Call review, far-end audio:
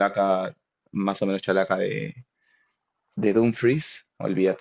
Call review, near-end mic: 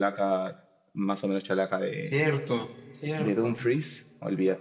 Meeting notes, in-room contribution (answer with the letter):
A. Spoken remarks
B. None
A